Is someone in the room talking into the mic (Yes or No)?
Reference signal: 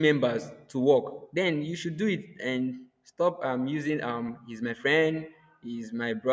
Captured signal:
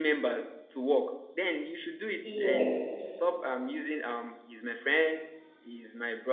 Yes